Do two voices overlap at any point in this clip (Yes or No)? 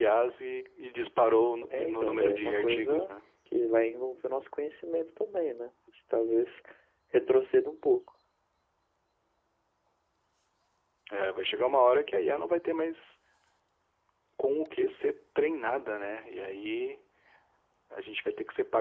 Yes